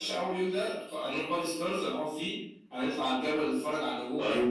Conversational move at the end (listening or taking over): taking over